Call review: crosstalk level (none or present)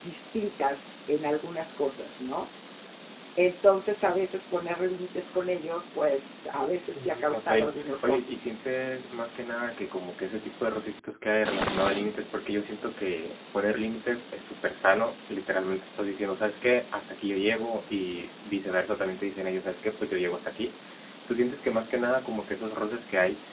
present